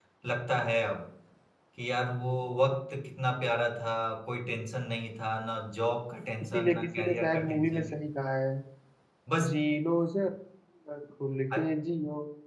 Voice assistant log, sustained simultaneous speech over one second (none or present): present